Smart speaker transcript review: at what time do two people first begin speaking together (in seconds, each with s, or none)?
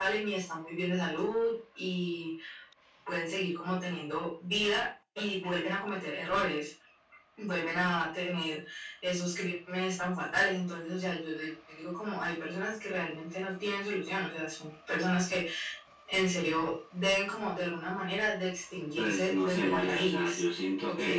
18.9 s